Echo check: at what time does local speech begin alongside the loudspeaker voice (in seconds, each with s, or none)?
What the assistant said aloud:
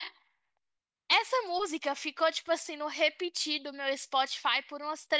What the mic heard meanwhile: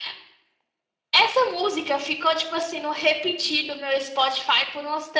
none